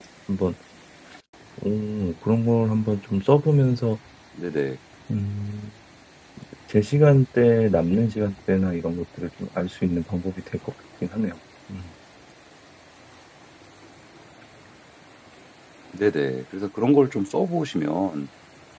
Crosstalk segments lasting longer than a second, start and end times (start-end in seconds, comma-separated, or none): none